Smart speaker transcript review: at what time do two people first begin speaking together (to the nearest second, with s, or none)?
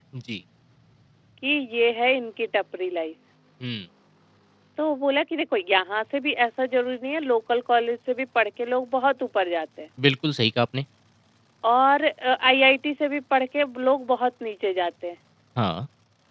none